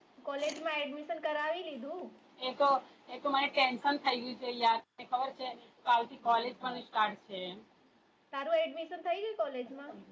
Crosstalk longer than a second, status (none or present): none